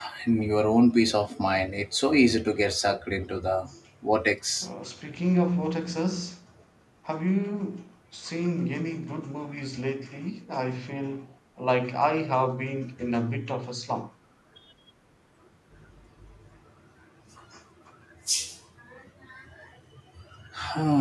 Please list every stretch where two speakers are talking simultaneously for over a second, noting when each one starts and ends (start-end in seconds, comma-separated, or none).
none